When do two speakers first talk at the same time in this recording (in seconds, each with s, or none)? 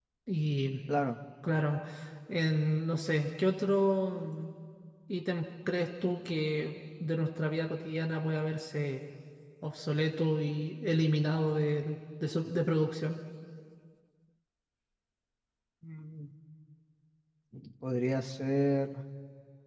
none